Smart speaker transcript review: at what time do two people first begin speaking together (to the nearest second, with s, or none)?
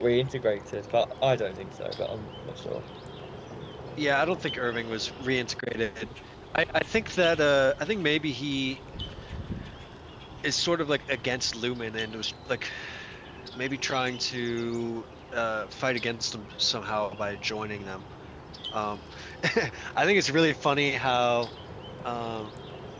none